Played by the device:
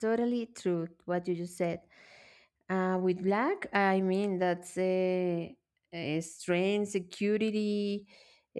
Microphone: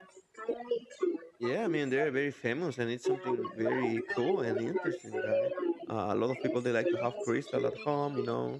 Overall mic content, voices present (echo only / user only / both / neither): both